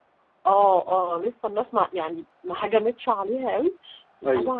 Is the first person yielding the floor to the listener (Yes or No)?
No